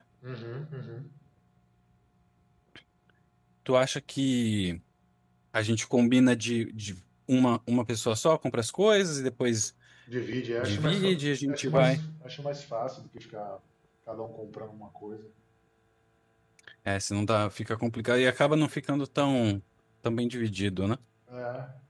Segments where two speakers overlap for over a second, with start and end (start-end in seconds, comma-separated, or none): 10.6-11.9